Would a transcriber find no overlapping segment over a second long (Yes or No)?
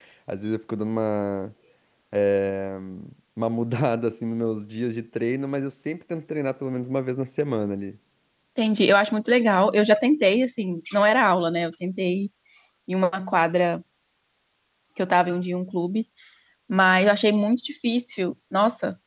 Yes